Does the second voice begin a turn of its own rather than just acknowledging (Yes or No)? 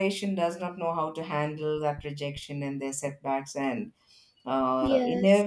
No